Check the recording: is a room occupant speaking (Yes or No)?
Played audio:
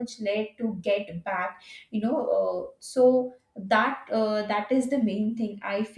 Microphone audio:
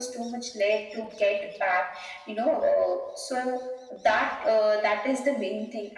No